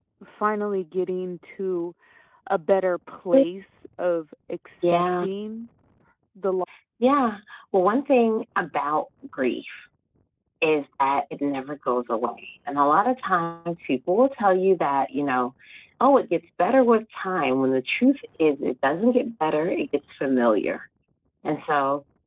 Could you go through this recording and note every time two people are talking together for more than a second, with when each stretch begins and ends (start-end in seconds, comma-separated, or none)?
none